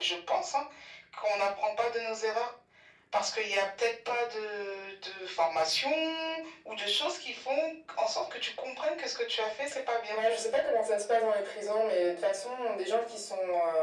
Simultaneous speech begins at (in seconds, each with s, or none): none